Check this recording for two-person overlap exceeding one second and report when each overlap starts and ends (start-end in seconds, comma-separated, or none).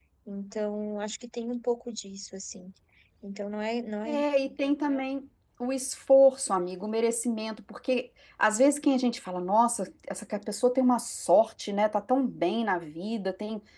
none